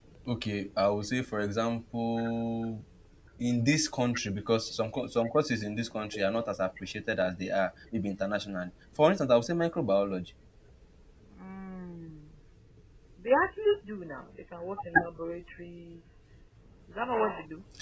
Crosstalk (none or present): none